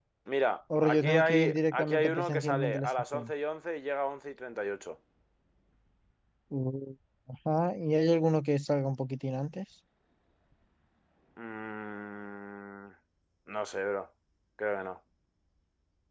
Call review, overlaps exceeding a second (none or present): present